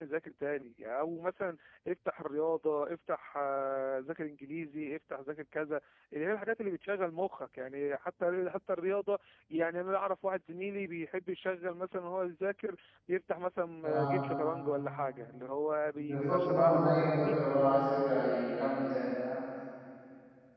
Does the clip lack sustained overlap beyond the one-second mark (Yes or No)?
No